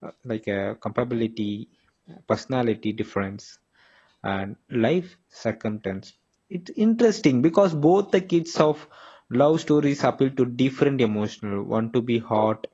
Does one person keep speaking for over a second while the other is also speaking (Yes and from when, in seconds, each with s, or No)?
No